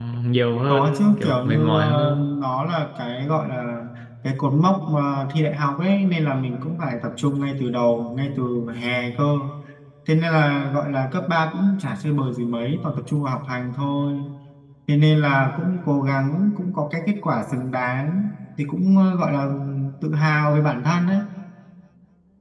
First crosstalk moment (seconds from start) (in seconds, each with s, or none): 0.7 s